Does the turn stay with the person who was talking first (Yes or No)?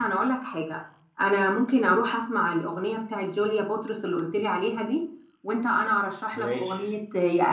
Yes